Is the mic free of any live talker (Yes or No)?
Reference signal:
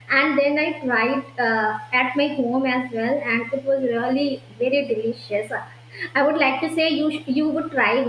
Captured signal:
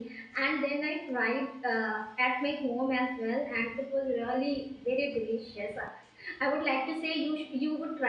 Yes